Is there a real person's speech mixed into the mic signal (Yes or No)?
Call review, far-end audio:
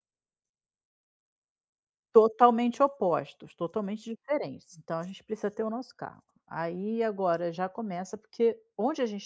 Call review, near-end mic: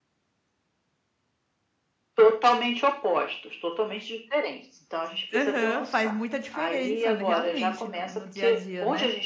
Yes